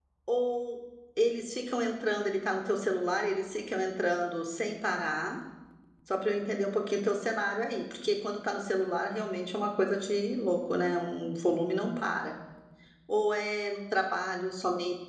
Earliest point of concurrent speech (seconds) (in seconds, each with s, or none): none